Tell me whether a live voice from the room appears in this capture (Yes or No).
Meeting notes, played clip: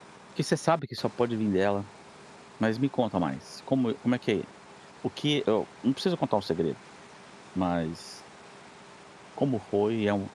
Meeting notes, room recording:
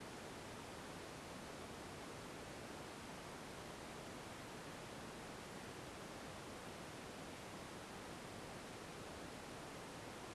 No